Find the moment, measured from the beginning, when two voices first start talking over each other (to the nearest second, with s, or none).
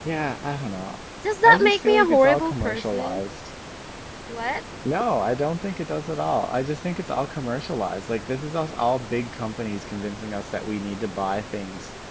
1 s